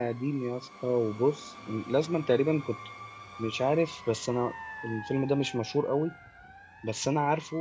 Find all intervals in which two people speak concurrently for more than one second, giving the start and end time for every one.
none

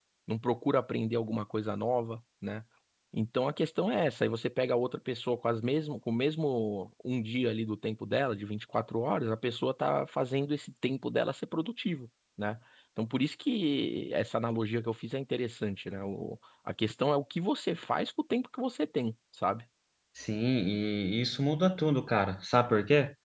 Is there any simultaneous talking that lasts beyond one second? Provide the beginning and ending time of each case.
none

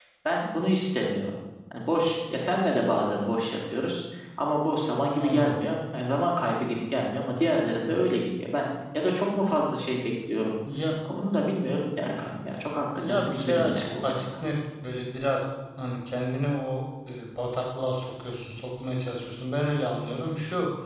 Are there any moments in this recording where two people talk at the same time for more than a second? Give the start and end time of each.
13.0-14.2

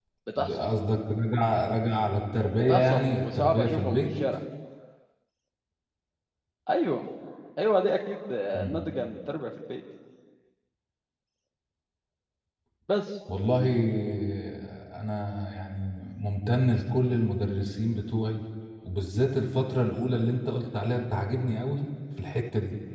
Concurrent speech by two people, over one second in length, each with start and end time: 2.6-4.1

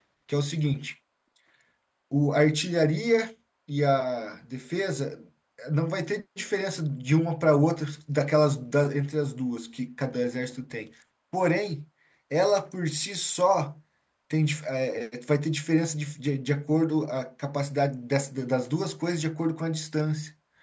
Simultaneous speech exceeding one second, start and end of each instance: none

